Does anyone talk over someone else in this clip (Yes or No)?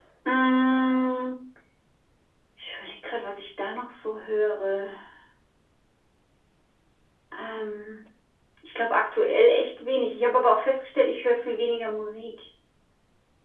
No